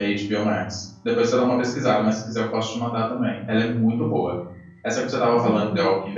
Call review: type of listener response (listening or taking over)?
listening